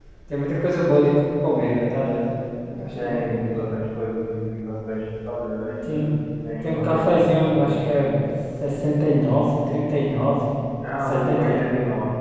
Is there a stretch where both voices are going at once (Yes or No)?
Yes